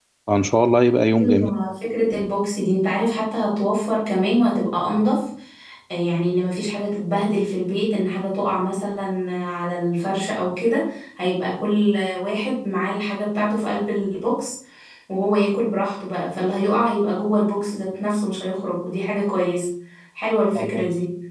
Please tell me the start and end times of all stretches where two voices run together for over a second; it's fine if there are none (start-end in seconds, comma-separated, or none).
none